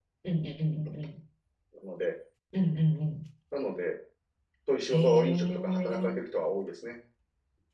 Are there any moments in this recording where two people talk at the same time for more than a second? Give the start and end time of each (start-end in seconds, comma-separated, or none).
4.9-6.1